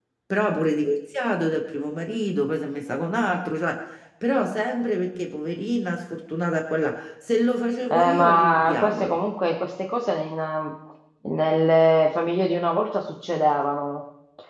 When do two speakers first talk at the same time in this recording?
8 s

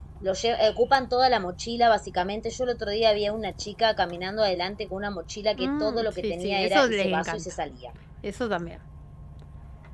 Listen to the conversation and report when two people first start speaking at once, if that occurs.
6 s

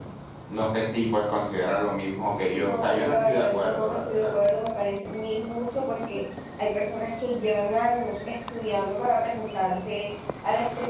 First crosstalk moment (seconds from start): 3 s

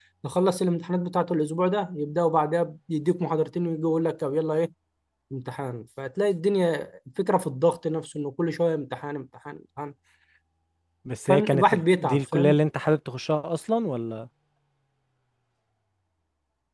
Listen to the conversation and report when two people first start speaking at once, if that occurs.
11 s

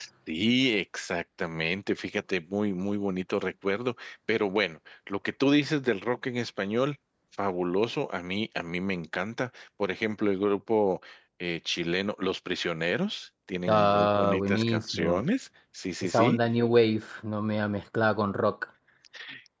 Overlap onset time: 14 s

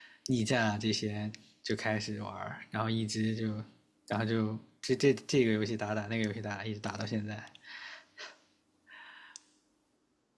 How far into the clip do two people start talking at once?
none

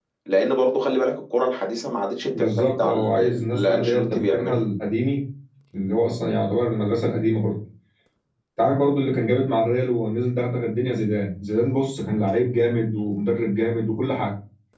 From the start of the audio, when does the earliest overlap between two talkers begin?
2 s

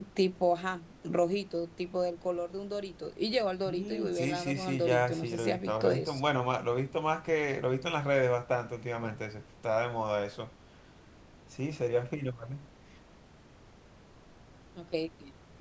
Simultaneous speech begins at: 4 s

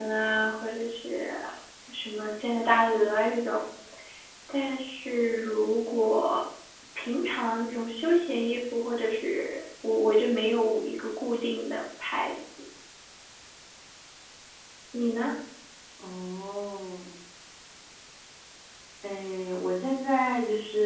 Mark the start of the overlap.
none

